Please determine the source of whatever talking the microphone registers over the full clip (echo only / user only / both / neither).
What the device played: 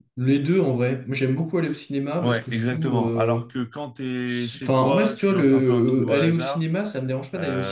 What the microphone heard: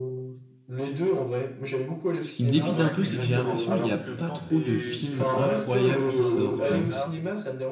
both